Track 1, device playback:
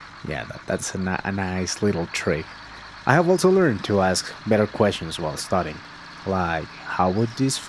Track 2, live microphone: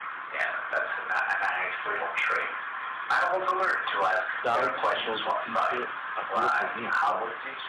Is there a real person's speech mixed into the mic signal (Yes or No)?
Yes